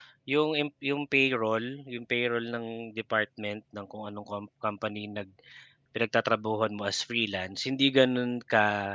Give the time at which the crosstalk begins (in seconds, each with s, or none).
none